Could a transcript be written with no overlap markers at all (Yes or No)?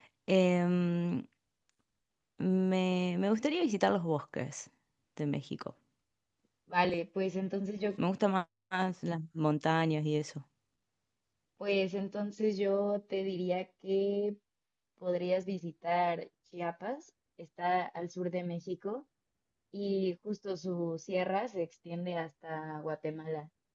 Yes